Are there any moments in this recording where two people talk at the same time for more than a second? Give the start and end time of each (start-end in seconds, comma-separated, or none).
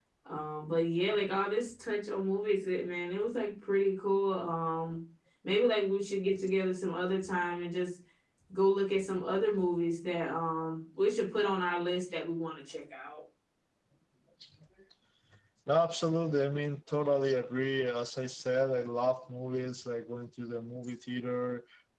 none